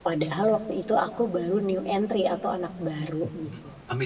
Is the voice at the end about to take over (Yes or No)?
Yes